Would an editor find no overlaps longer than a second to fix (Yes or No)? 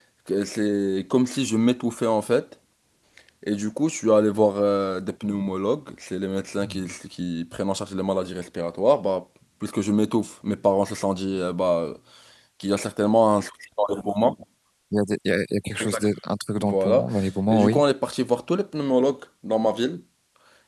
Yes